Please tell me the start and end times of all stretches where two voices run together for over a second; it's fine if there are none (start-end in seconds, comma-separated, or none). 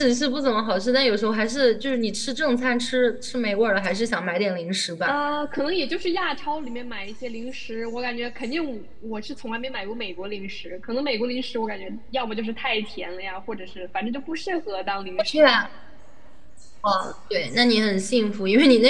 none